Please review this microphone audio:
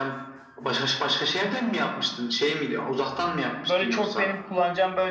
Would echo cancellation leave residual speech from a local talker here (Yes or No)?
Yes